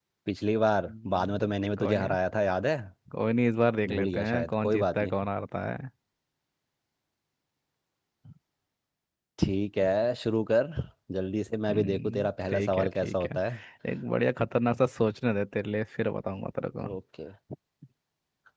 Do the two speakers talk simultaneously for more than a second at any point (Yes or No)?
Yes